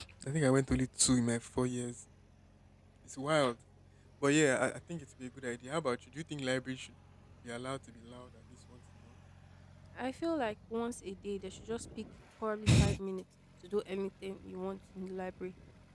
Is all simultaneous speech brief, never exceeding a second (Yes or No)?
Yes